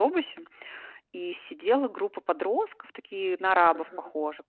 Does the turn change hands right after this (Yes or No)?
No